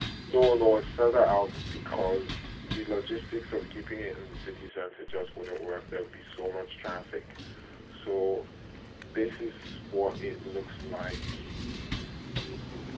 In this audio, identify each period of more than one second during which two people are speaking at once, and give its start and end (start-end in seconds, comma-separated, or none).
none